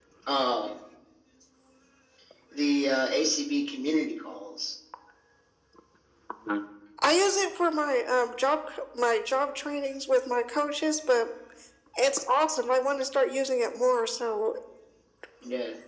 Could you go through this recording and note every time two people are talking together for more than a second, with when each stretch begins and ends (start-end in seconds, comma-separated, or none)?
none